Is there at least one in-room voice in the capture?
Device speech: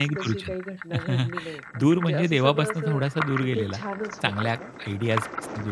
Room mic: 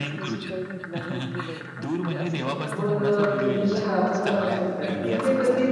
Yes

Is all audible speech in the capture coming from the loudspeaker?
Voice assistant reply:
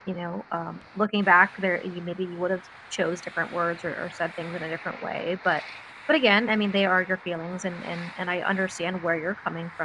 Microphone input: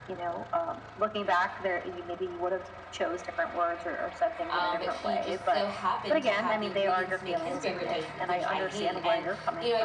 No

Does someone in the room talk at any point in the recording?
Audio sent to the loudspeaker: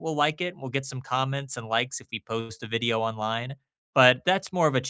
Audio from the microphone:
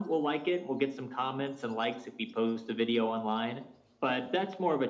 No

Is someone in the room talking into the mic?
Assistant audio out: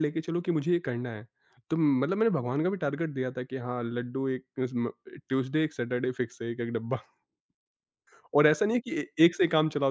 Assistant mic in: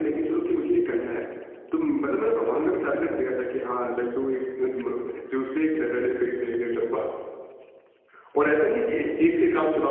No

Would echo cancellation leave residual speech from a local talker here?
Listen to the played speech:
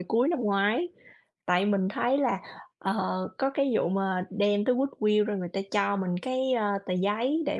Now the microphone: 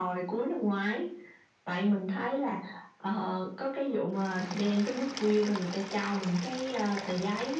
No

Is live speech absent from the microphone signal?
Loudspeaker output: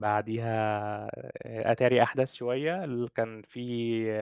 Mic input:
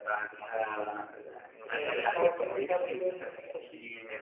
No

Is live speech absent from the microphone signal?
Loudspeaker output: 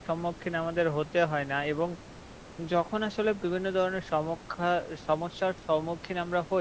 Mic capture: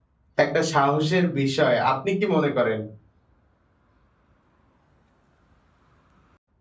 No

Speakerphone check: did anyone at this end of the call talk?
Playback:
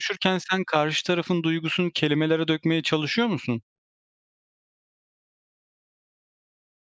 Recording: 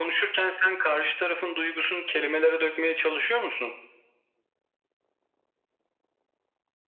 No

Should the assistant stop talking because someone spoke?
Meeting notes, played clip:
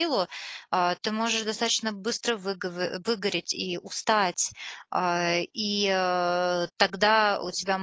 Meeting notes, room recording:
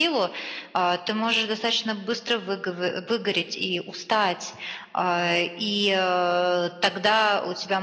No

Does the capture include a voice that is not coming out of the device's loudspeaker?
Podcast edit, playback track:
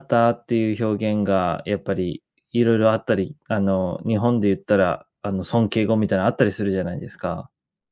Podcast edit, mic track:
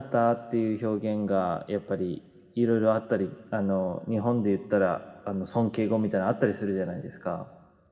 No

